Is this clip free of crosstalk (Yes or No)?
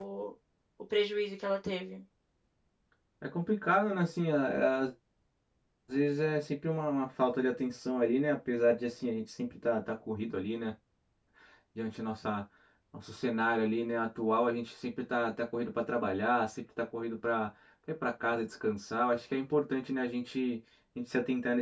Yes